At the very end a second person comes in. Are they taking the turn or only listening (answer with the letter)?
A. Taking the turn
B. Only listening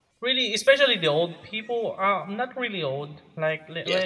B